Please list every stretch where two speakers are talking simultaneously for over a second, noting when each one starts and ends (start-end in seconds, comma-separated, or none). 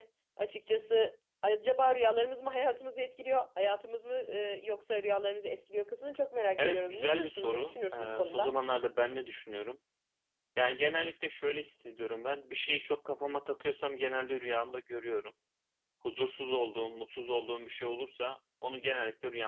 6.6-8.5